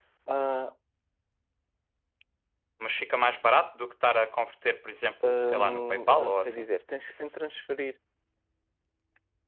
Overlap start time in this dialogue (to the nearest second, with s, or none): 5 s